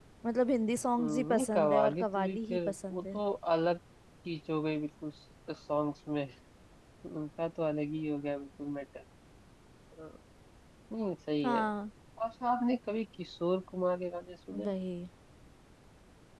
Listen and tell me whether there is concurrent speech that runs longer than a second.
Yes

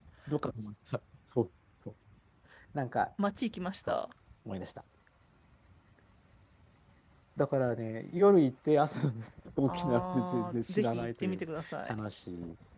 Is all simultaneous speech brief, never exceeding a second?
No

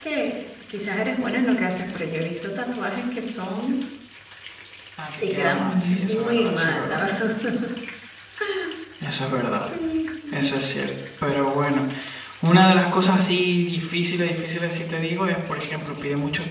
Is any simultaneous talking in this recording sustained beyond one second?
Yes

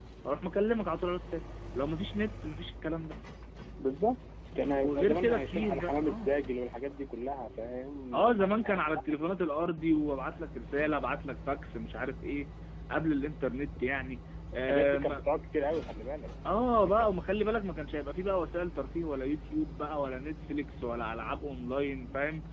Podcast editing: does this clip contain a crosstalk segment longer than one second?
Yes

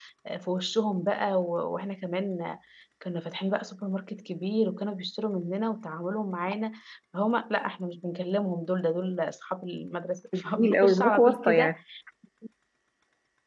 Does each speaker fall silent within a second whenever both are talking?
No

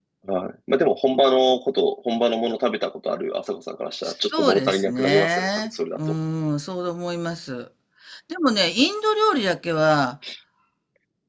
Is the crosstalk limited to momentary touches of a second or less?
No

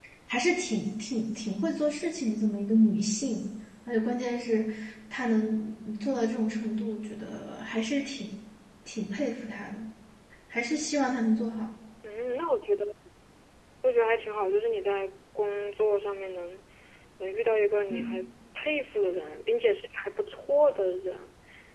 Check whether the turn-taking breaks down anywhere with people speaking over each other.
No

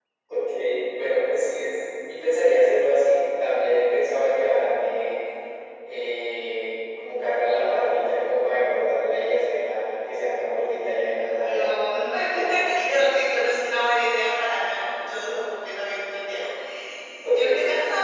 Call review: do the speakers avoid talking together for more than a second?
Yes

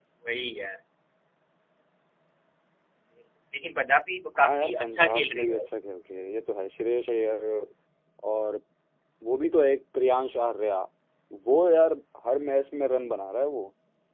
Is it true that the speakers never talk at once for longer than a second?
No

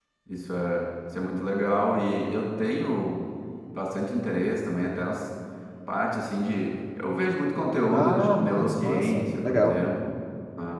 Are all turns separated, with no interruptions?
No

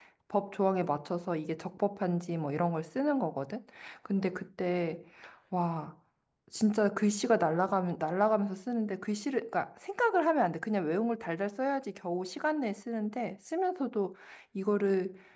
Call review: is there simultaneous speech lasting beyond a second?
No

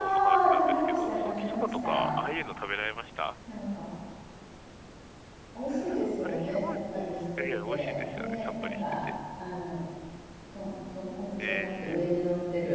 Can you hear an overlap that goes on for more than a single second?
Yes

